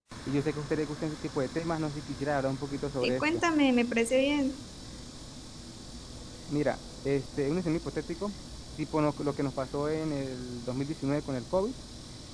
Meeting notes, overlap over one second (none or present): none